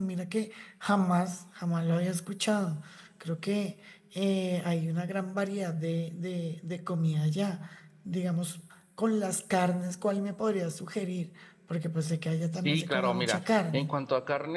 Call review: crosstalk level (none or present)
present